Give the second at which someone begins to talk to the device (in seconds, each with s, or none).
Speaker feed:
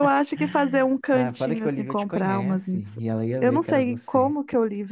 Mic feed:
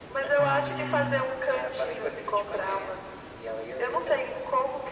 0.4 s